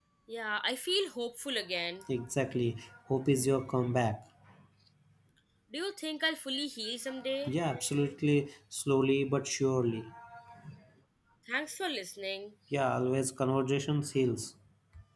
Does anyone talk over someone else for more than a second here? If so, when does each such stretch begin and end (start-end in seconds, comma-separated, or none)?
none